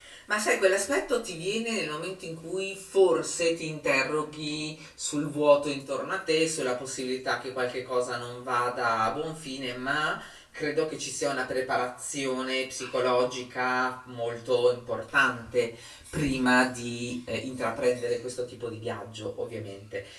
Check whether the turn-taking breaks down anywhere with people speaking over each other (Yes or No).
No